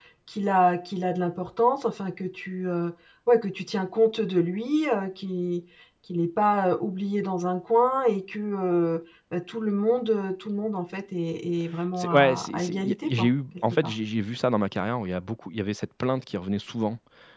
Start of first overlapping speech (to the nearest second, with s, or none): 12 s